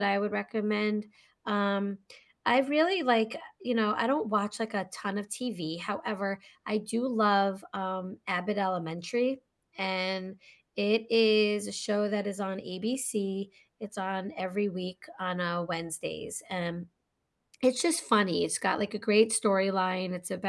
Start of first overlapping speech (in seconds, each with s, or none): none